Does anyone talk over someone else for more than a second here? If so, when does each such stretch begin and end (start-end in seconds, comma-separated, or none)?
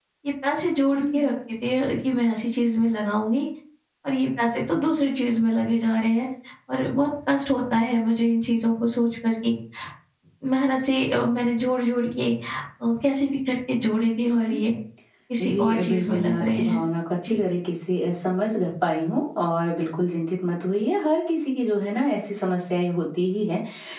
15.5-16.8